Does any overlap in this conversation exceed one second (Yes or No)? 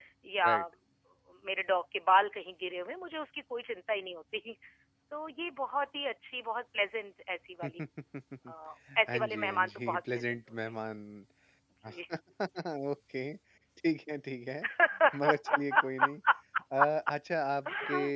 Yes